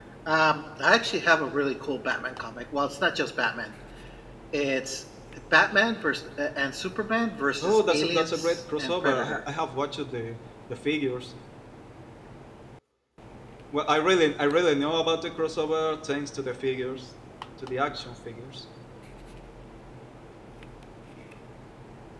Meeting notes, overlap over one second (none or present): present